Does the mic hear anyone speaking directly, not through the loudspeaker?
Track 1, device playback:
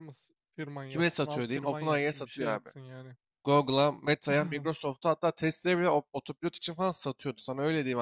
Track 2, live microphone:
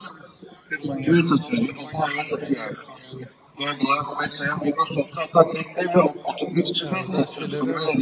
Yes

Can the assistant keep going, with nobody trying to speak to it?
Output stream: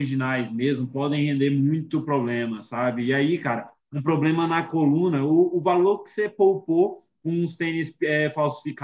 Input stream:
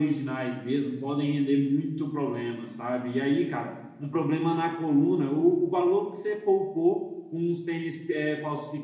Yes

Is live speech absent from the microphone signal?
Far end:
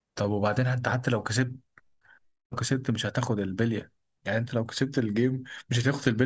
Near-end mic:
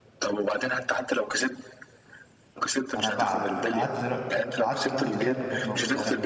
No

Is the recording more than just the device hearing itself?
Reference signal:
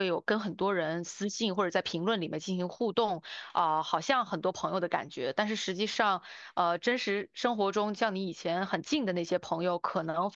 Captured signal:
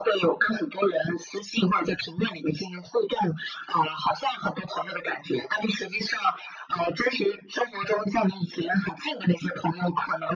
No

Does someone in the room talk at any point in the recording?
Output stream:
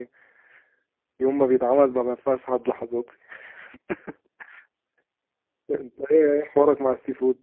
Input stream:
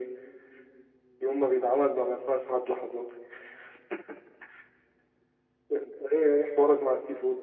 No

